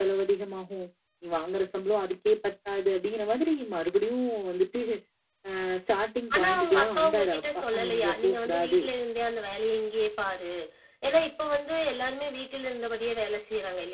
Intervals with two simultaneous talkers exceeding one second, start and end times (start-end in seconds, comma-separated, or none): 6.3-8.8